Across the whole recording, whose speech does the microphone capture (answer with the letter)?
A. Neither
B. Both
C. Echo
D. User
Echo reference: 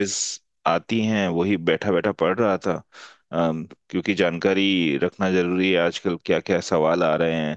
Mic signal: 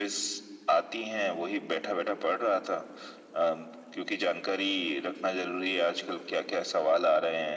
C